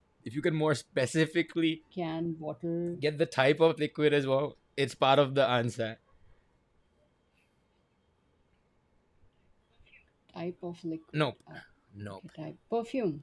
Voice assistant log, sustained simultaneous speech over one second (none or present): none